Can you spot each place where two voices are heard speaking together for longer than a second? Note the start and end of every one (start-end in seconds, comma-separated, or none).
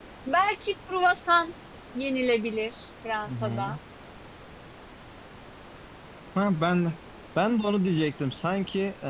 none